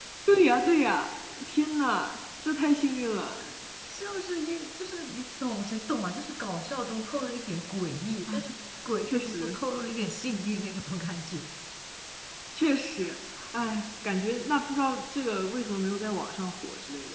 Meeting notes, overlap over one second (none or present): none